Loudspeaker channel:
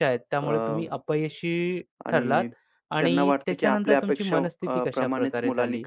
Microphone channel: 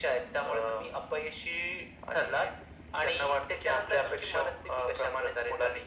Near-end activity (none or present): none